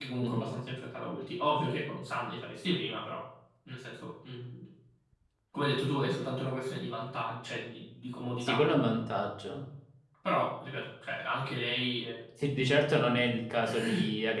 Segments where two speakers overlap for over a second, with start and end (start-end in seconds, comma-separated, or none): none